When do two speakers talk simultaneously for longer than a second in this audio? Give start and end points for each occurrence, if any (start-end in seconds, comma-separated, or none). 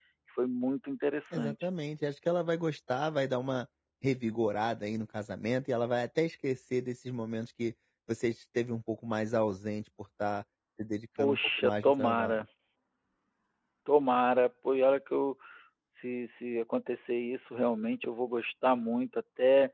11.2-12.4